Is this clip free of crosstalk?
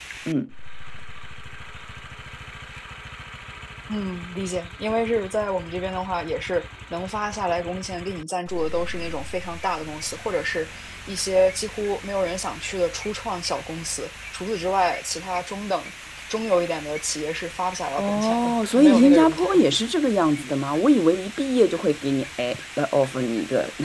No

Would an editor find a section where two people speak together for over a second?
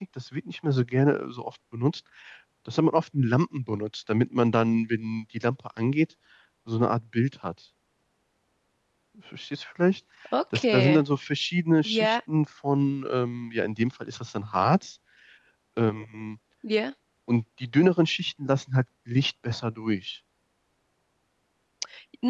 No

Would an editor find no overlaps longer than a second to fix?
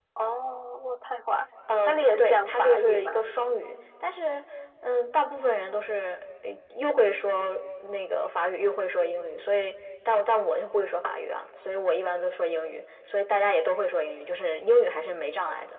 No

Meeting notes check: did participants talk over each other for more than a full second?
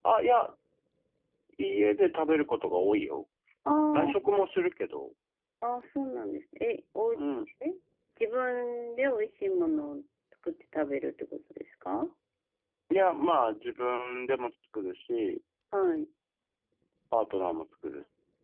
No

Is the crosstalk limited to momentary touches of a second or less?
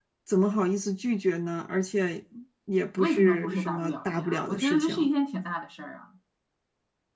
No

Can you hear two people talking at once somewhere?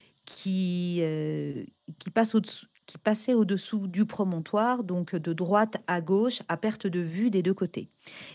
No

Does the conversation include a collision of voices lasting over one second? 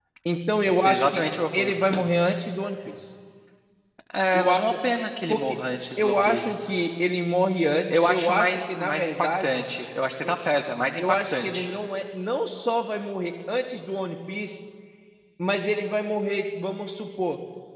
Yes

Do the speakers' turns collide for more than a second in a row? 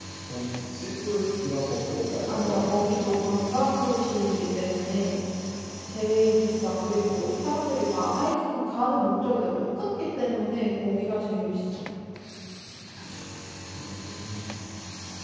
Yes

